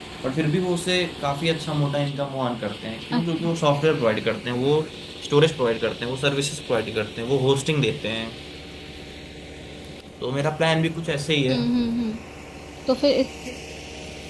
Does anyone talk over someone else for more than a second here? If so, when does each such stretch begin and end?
none

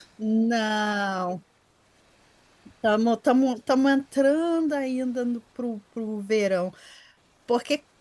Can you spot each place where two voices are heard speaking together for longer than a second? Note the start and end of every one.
none

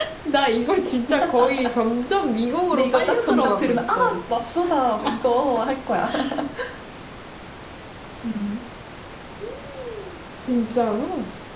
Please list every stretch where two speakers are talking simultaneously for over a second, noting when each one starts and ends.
2.7-4.2

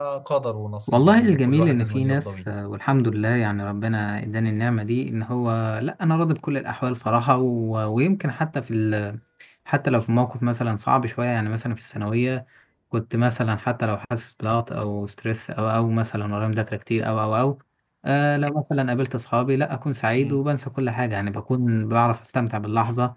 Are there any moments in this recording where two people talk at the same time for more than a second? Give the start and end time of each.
0.9-2.5

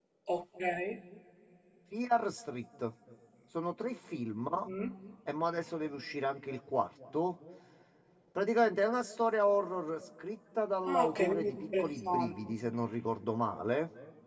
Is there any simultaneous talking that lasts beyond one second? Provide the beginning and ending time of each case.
10.9-12.6

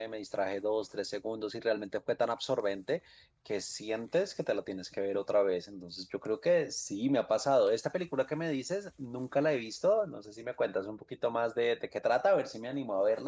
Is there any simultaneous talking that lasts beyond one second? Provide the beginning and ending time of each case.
none

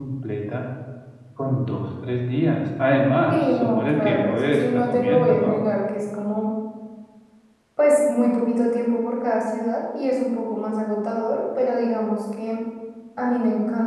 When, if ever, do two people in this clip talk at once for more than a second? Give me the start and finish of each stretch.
3.3-5.6

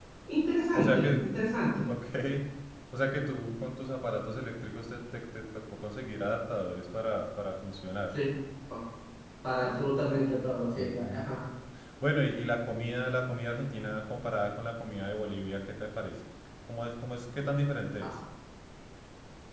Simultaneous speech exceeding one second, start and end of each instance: none

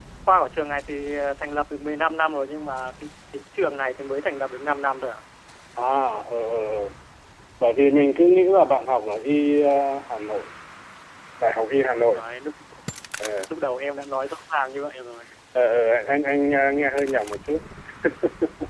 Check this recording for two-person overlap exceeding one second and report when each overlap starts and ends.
none

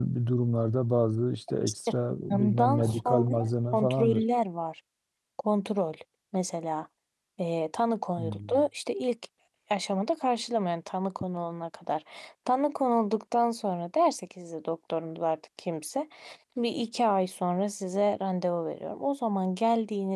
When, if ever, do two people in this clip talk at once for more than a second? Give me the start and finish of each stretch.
2.3-4.2

